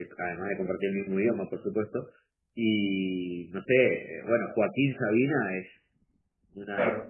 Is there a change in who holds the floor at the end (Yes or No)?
No